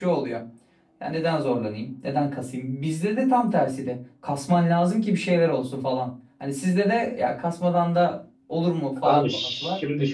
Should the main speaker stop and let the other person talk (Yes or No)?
Yes